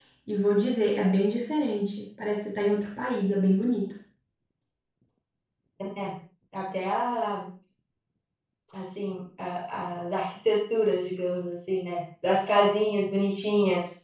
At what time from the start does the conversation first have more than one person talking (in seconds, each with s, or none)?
none